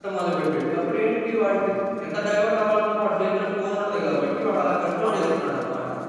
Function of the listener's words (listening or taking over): taking over